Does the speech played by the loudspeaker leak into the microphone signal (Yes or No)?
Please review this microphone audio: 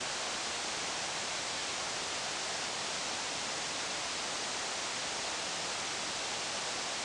No